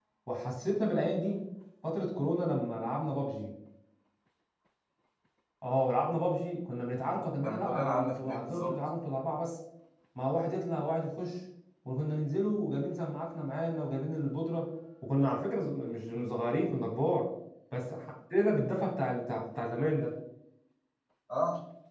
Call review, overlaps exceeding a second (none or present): present